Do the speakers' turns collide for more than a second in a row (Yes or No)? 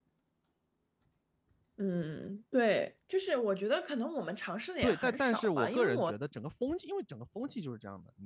Yes